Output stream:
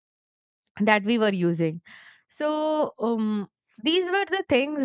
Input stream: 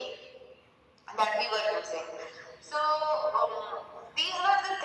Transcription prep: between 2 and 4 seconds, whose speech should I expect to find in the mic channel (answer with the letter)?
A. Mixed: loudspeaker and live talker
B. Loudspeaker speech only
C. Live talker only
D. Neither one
B